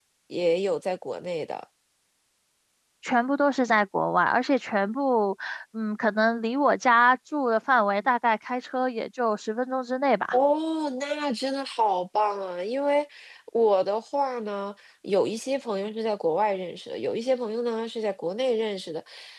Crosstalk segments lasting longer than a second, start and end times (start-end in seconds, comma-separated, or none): none